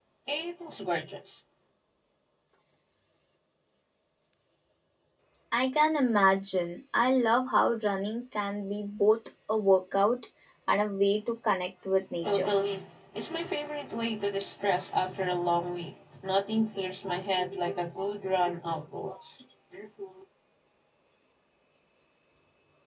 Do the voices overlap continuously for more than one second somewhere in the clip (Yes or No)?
No